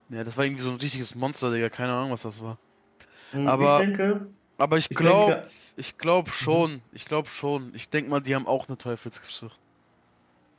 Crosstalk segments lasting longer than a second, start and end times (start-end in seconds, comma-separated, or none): none